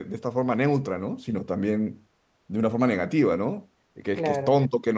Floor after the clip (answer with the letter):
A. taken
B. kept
B